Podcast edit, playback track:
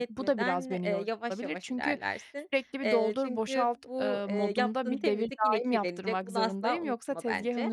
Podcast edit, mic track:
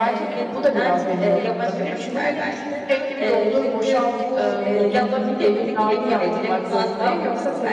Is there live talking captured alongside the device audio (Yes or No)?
Yes